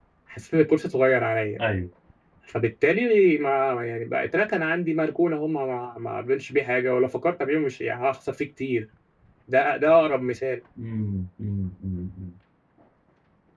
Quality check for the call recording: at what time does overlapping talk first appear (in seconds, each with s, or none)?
none